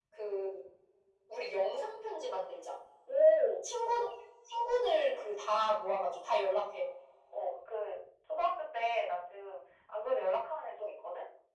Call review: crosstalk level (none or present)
none